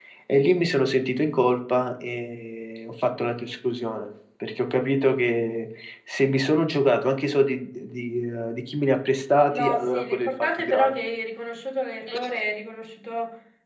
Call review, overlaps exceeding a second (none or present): present